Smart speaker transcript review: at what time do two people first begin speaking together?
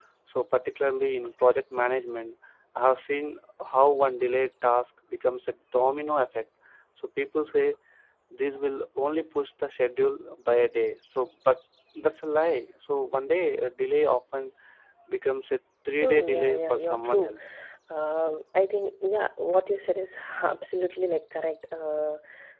16 s

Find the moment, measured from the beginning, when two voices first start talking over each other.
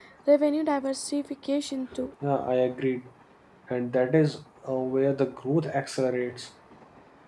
none

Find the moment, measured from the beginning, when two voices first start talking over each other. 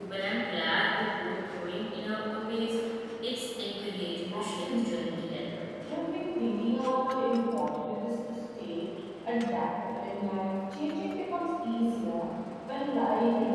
4 s

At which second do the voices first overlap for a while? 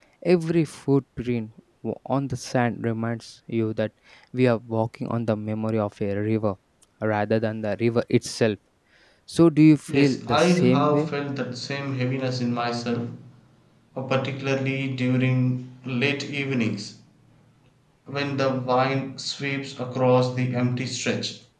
10 s

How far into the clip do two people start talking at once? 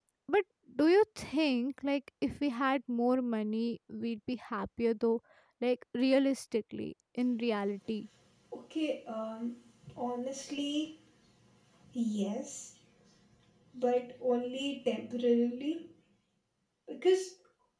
none

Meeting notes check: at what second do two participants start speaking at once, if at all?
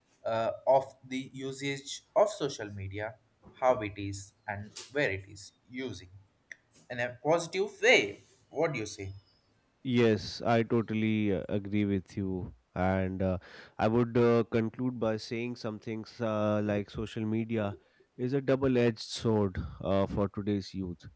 none

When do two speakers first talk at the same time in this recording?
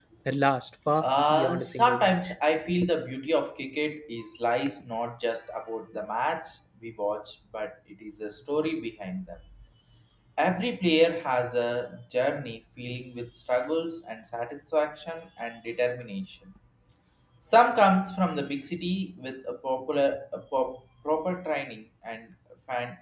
1 s

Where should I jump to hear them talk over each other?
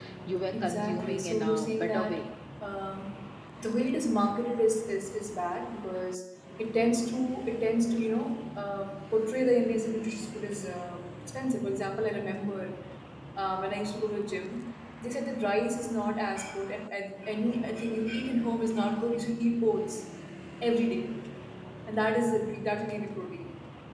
1 s

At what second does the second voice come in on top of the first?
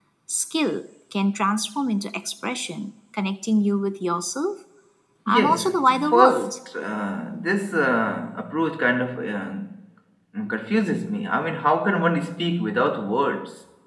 5 s

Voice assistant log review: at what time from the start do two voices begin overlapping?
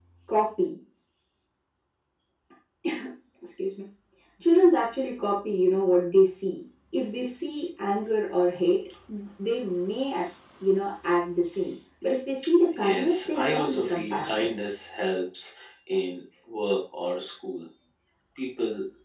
13 s

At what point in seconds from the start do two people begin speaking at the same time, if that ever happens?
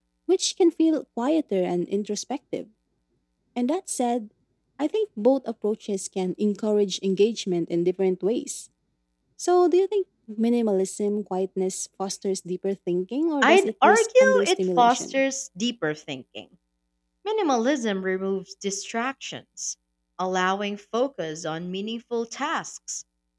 13 s

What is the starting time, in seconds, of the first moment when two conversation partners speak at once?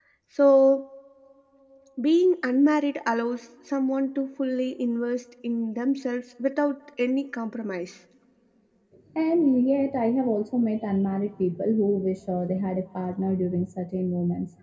none

